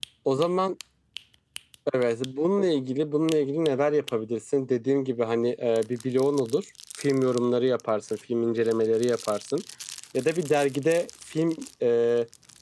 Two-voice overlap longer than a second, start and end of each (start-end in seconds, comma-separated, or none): none